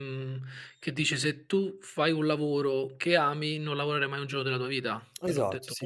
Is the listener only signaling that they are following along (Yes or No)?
No